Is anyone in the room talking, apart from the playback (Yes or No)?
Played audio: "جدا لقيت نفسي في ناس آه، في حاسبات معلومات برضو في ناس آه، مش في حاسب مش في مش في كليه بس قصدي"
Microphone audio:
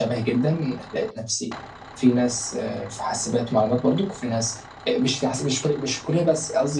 No